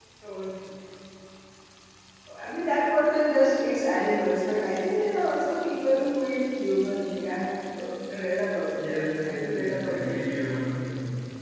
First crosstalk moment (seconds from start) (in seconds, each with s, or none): 8.7 s